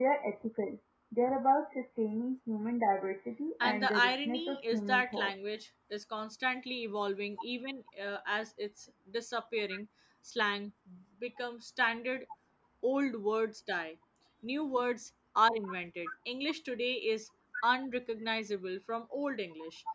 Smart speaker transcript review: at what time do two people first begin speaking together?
3.6 s

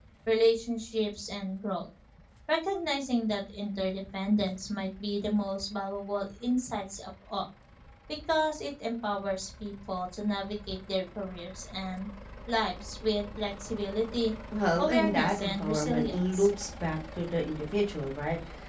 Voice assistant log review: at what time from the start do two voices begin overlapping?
14.8 s

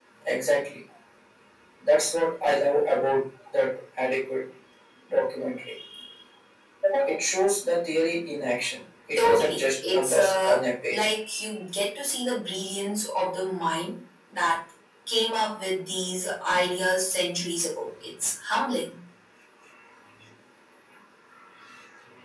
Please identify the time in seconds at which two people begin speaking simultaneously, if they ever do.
9.2 s

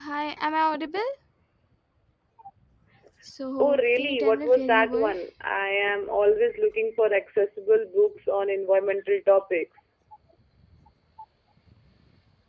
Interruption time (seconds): 3.6 s

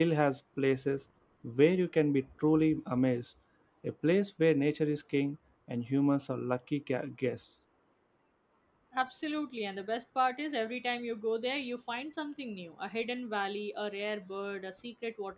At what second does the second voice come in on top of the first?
none

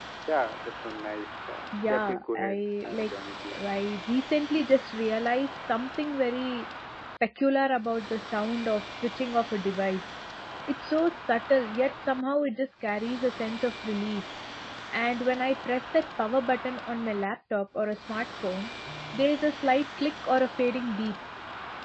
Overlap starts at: 1.7 s

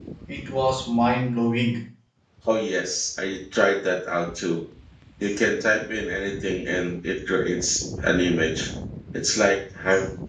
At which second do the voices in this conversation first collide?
none

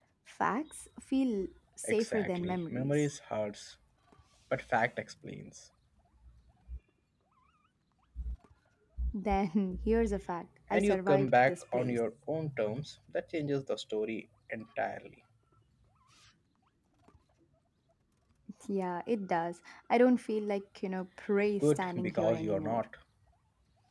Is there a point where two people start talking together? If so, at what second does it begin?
1.8 s

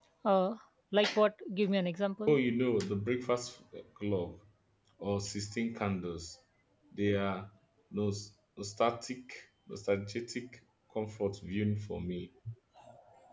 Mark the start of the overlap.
none

